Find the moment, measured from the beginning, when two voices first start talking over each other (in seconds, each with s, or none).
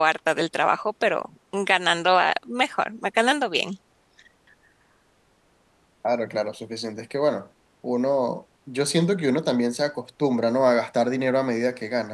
none